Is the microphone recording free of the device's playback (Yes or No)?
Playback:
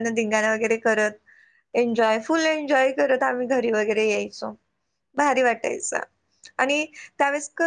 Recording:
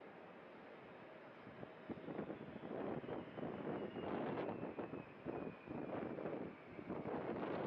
Yes